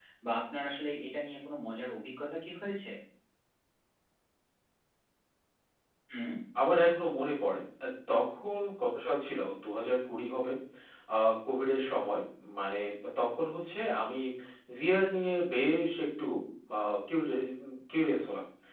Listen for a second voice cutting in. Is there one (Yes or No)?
No